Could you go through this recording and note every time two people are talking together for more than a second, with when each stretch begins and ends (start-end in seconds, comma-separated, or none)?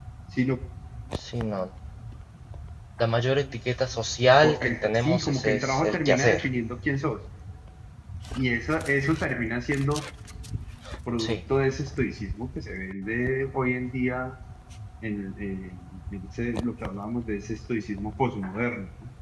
4.4-6.4